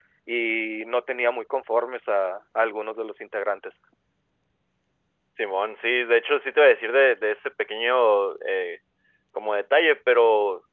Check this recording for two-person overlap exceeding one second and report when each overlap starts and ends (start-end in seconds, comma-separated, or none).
none